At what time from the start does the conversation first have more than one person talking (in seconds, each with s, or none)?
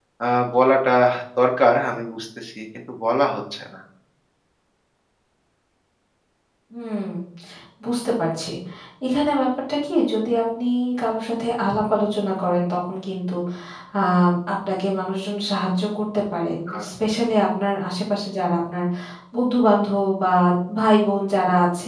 none